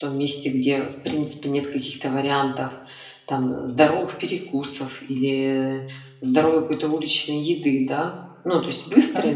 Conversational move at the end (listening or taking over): listening